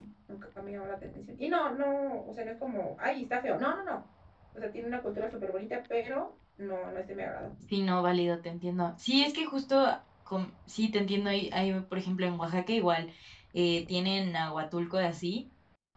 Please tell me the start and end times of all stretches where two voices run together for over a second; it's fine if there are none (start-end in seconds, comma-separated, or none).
none